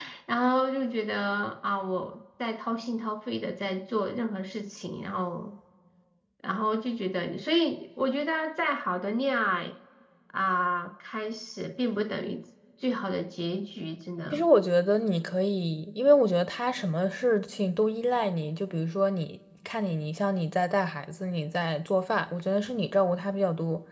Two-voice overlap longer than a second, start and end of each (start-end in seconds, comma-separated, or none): none